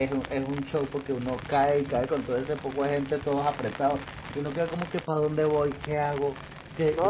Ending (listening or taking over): taking over